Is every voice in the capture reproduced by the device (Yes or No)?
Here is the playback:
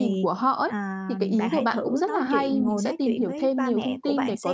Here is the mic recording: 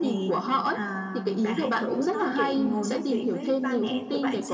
Yes